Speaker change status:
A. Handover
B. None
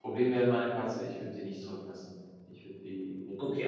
A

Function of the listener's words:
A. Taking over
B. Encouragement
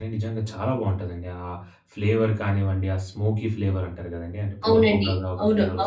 A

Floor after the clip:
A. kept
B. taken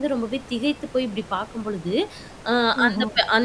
A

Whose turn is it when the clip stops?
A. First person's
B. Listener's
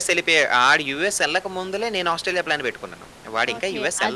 B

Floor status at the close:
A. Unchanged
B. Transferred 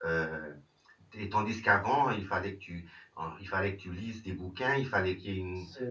A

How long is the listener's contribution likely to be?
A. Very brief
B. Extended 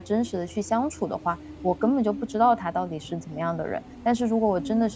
A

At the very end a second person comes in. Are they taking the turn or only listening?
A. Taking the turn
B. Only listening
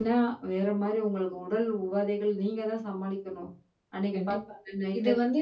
A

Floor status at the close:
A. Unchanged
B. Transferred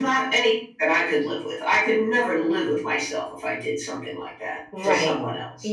B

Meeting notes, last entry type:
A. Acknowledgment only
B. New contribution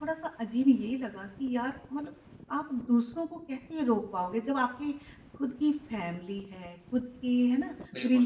A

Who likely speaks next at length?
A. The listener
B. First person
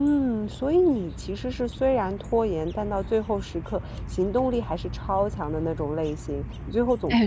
A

